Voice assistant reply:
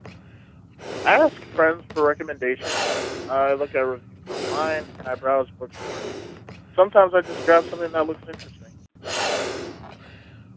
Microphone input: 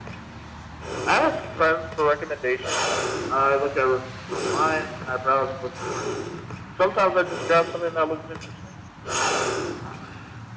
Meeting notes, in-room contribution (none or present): none